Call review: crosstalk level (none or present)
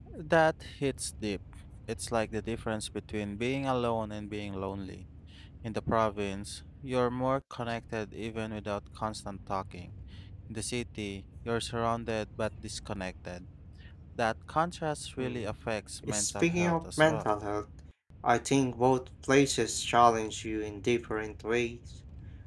present